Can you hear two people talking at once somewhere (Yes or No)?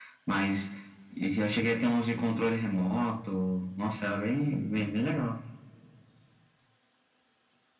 No